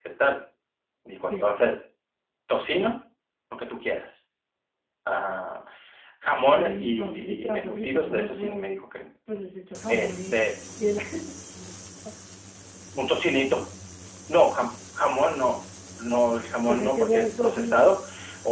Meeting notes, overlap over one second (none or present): present